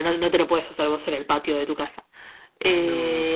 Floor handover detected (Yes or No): No